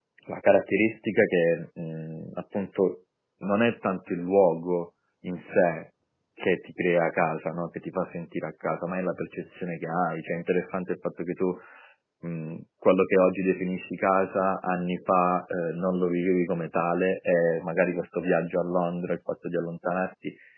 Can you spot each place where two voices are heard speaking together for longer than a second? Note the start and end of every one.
none

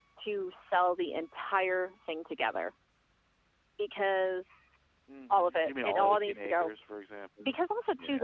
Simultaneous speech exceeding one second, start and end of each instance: 5.3-6.7

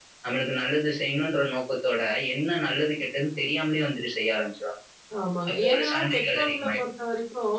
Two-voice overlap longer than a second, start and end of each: 5.5-6.8

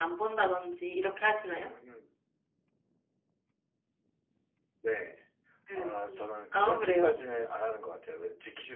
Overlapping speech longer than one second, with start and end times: 5.8-7.1

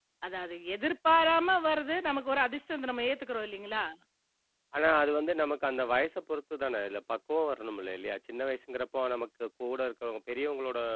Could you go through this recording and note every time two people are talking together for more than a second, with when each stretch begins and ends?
none

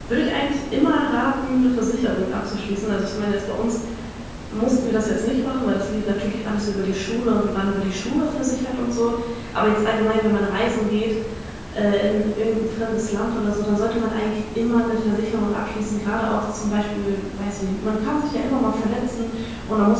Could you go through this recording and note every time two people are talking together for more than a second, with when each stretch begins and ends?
none

